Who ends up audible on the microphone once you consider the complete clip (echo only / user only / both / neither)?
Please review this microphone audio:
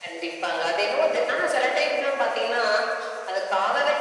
echo only